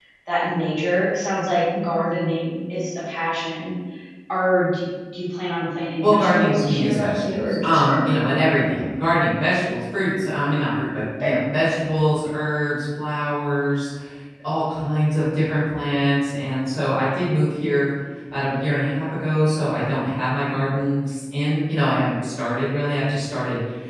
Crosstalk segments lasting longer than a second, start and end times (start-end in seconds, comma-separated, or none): 6.0-8.3